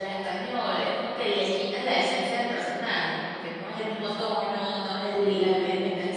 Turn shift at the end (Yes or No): No